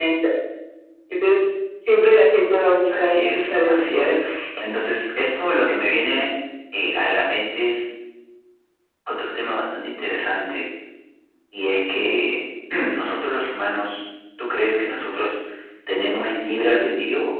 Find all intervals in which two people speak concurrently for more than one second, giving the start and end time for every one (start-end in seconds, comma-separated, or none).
3.0-4.2